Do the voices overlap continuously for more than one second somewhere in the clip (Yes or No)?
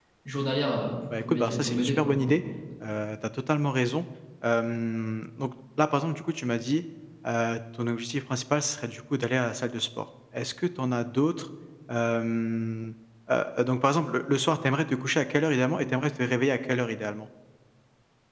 Yes